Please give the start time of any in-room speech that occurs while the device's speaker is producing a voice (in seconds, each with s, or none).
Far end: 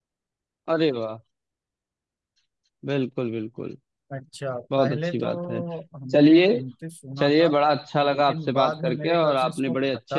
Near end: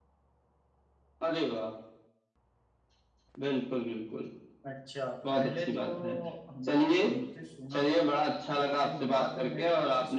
none